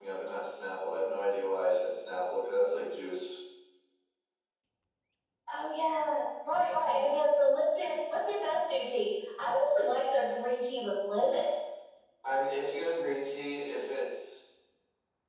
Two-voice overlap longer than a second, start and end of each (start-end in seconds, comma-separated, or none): none